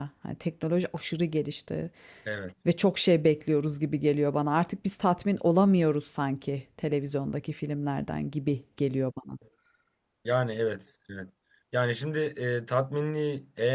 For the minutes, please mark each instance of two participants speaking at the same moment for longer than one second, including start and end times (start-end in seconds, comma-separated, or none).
none